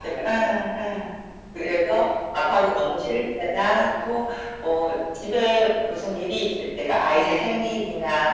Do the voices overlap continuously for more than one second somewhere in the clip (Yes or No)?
No